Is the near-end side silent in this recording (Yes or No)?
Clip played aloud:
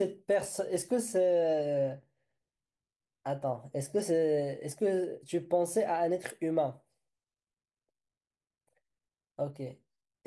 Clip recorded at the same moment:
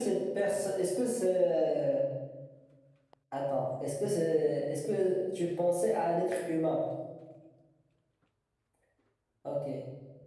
Yes